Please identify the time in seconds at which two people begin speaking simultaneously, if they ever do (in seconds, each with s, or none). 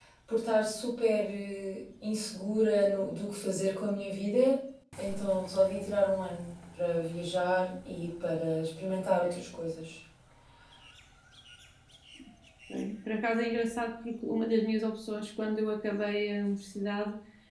none